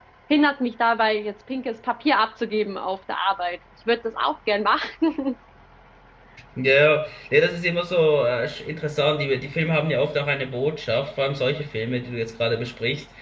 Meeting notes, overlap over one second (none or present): none